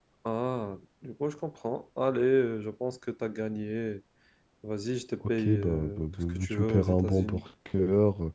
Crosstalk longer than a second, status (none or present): present